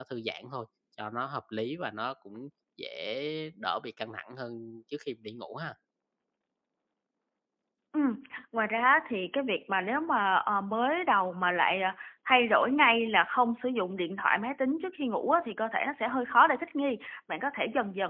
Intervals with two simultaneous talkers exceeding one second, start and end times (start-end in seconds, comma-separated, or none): none